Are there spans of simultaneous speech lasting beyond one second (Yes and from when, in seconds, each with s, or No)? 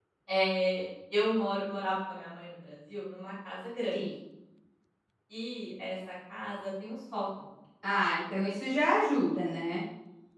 No